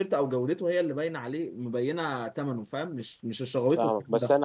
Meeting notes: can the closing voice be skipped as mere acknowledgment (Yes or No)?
No